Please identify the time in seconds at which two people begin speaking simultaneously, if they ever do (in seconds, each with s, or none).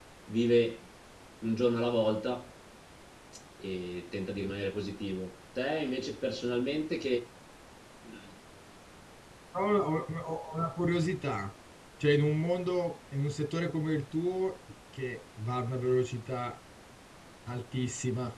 none